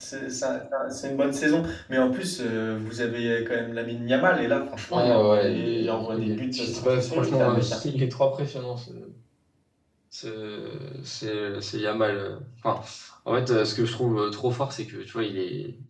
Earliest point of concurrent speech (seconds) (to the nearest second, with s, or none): 5 s